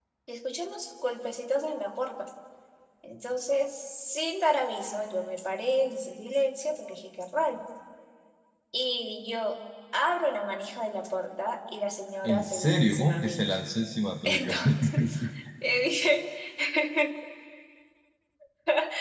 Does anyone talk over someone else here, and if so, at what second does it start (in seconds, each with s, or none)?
12.2 s